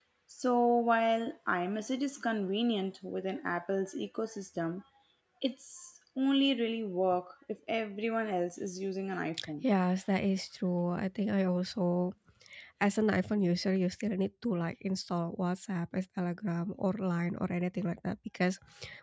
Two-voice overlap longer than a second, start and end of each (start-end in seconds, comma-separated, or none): none